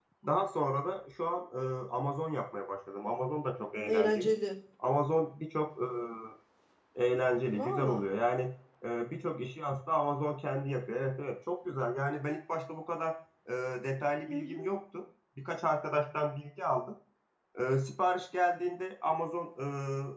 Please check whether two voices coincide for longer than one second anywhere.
No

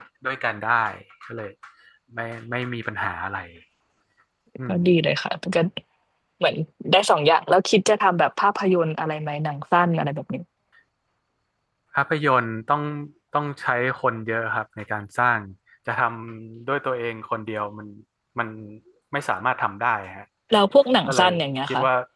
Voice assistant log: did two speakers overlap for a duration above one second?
No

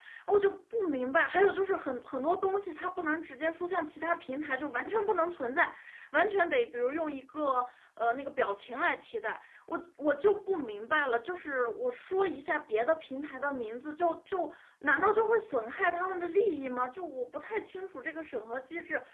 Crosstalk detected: No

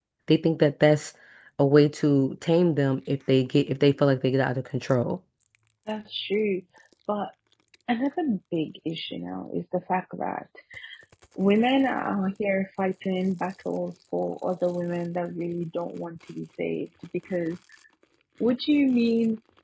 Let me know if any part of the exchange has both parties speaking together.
No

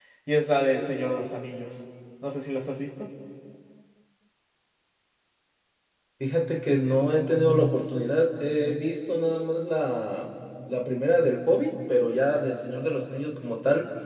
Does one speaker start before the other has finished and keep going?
No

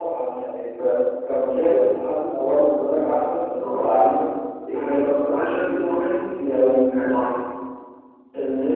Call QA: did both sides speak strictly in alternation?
No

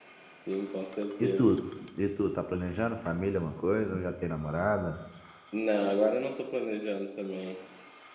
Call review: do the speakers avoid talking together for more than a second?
Yes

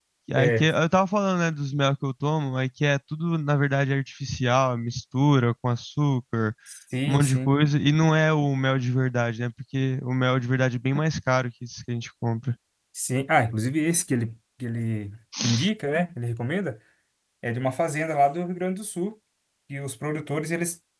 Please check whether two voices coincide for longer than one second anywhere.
No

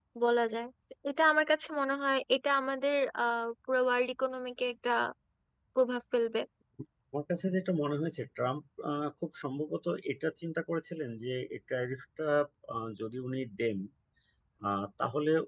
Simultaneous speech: No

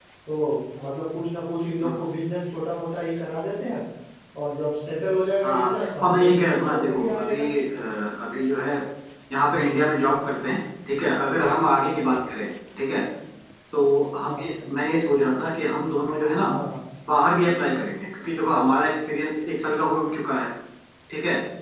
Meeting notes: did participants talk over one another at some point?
Yes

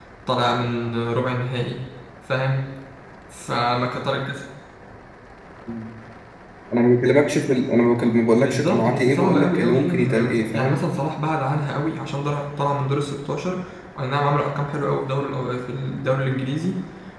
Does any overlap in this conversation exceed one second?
Yes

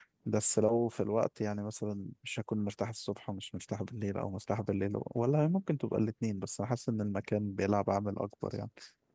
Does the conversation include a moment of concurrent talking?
No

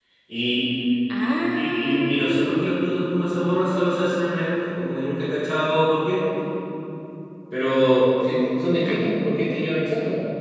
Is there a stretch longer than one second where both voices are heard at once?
Yes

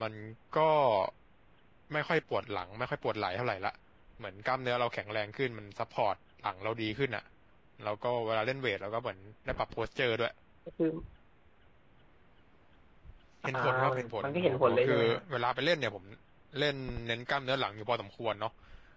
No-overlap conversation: No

